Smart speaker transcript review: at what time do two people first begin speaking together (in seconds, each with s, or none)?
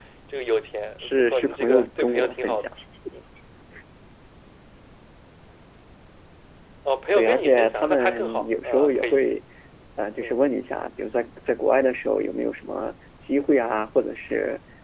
1.0 s